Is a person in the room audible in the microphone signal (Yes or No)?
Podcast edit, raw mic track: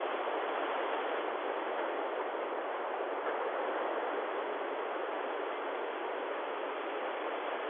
No